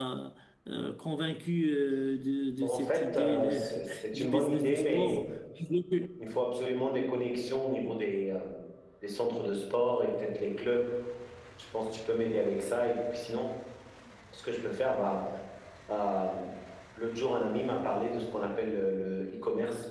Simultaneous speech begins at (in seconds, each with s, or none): 2.6 s